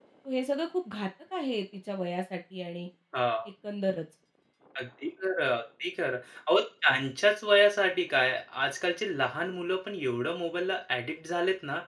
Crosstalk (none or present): none